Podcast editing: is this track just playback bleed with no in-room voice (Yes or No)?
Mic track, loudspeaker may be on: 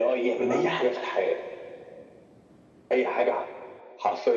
No